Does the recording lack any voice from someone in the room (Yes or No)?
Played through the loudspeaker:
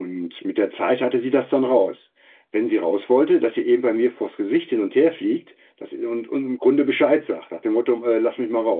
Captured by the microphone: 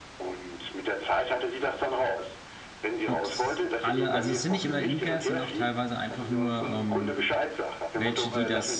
No